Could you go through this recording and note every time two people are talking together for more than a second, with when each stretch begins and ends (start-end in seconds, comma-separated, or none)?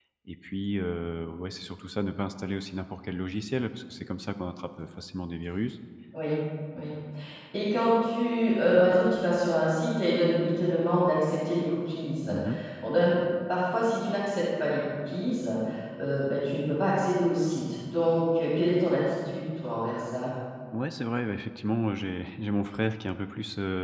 none